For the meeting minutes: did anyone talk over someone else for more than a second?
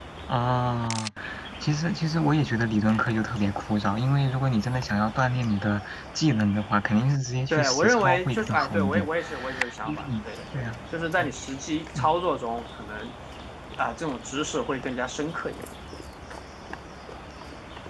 Yes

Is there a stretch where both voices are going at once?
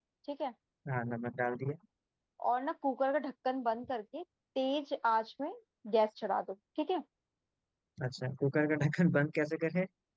No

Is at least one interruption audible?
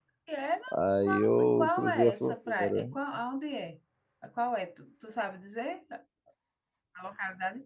Yes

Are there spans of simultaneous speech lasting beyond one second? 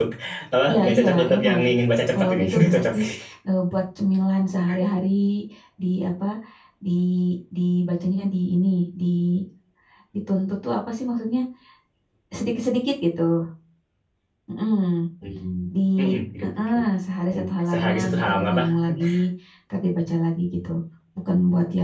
Yes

